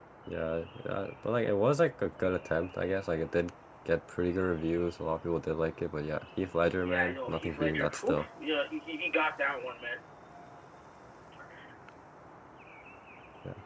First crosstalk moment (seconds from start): 6.8 s

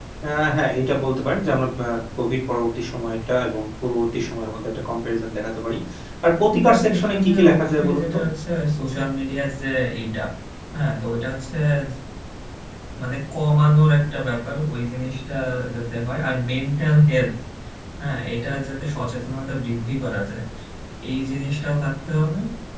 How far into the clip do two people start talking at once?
6.5 s

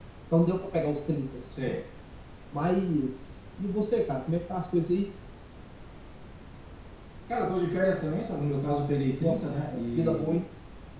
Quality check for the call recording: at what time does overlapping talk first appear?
9.2 s

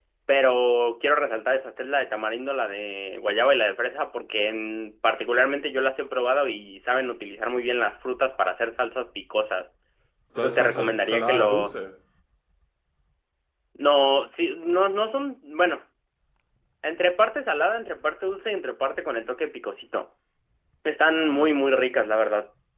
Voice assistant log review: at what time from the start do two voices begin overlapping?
10.4 s

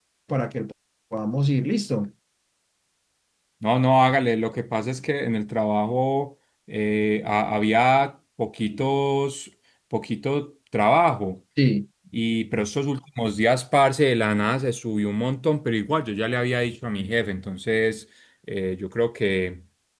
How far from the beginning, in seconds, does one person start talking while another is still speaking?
none

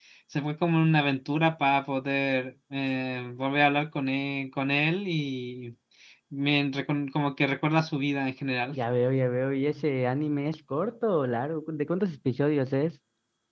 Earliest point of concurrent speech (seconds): none

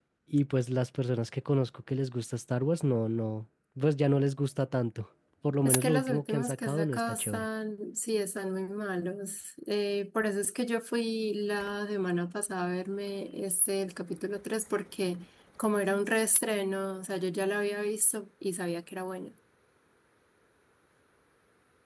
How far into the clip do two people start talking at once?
5.6 s

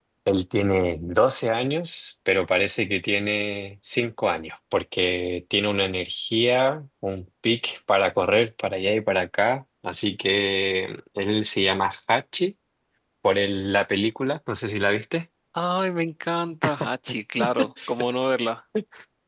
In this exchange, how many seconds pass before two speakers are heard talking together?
none

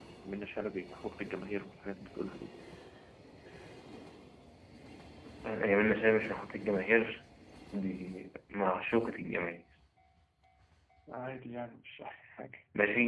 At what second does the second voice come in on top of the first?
none

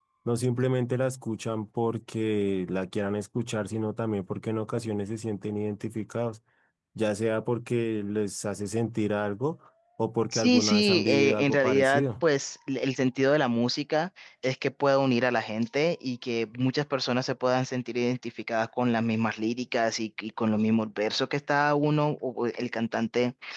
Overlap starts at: 10.3 s

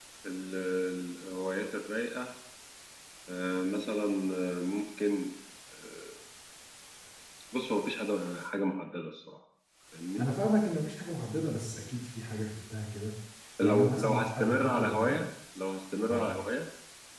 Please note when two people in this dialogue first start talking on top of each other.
13.6 s

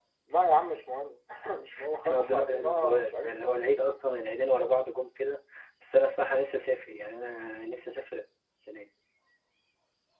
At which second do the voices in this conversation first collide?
2.0 s

